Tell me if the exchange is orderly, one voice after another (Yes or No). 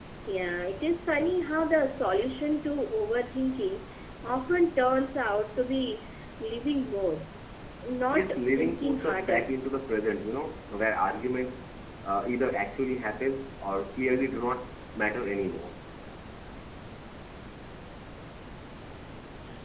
No